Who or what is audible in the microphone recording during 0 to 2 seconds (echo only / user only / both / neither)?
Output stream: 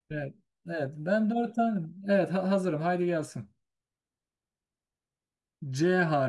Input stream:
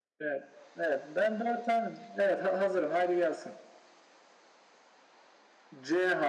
echo only